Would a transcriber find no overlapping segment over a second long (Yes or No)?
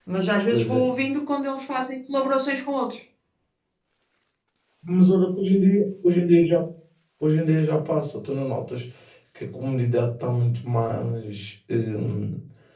Yes